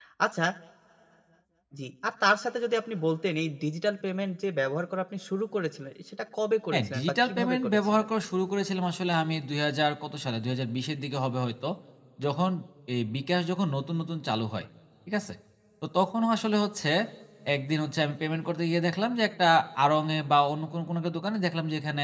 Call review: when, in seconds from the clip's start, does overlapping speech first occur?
7 s

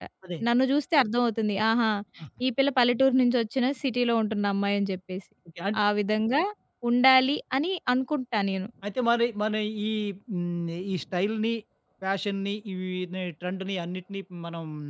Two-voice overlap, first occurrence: none

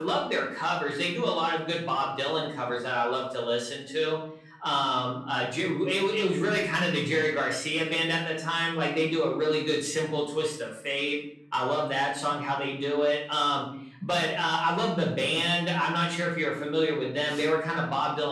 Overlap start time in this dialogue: none

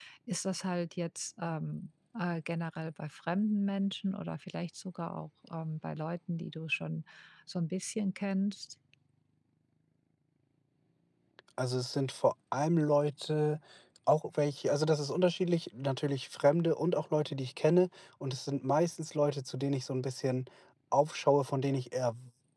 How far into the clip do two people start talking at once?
none

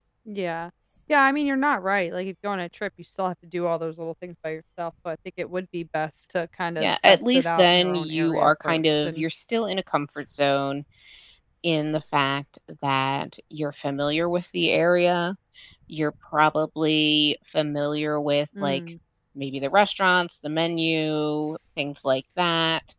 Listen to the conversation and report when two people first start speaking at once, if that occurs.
7 s

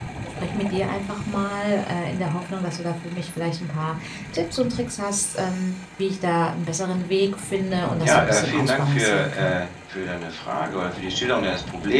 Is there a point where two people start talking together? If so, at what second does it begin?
8 s

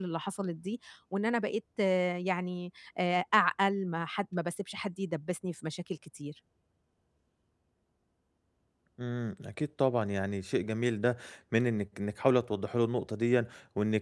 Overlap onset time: none

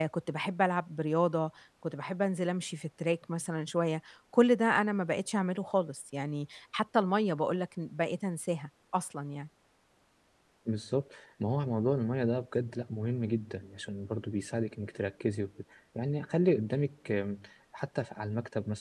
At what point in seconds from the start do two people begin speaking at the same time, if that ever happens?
none

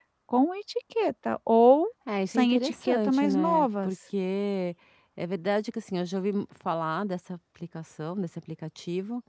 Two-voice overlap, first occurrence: 2 s

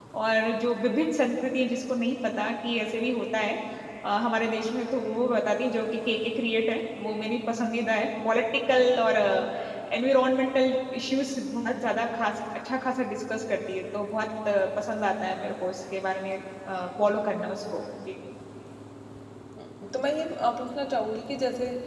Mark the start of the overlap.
none

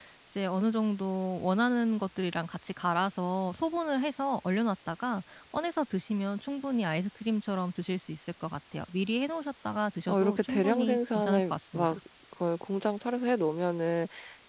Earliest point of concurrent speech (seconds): 10 s

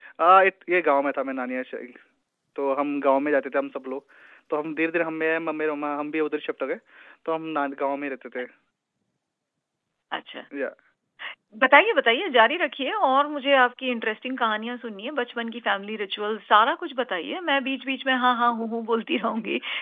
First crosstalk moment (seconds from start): none

